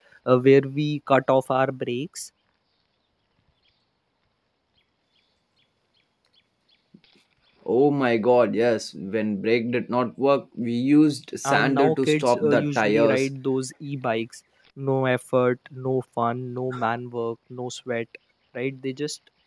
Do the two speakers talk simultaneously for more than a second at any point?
Yes, from 11.4 s

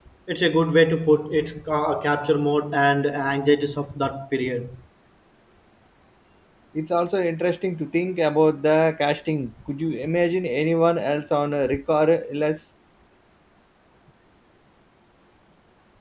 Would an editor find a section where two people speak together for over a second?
No

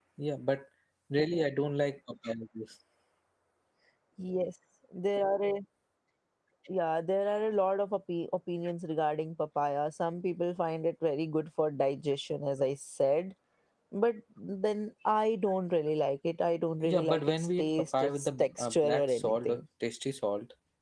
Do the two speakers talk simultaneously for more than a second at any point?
Yes, from 16.8 s

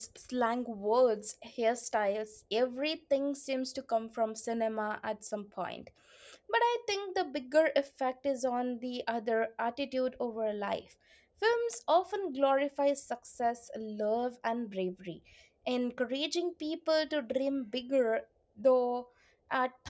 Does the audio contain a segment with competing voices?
No

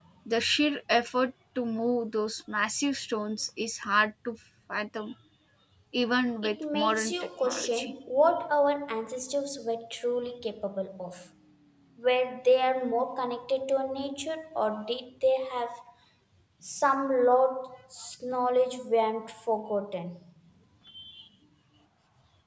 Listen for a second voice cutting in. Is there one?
Yes, from 6.4 s

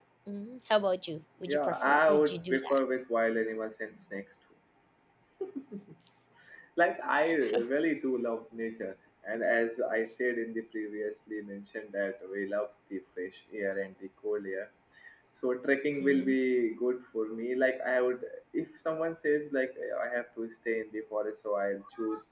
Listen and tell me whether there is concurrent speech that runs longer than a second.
Yes, from 1.5 s

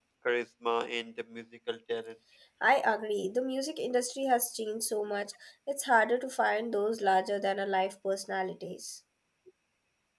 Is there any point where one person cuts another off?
No

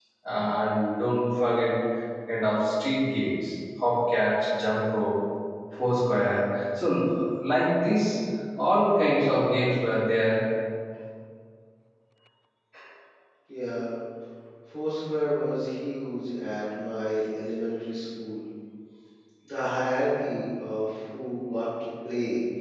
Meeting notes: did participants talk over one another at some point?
No

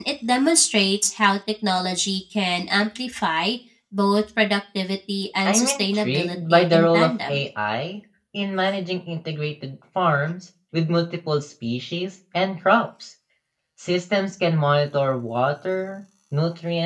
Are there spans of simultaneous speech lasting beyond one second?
Yes, from 5.4 s

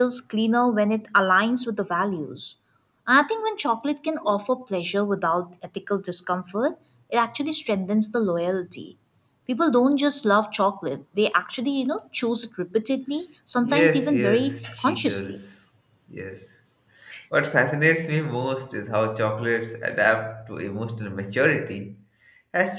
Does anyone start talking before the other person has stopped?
Yes, from 13.6 s

